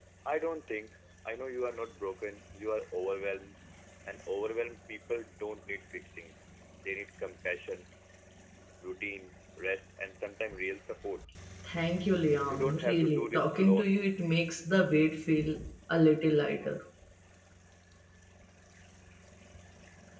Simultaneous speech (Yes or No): Yes